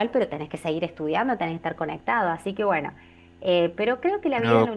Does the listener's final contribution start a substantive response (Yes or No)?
No